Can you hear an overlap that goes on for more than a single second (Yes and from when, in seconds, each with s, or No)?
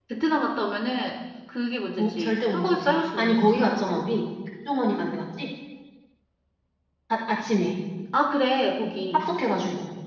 Yes, from 2.0 s